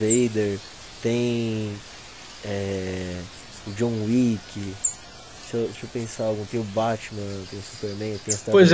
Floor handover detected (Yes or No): Yes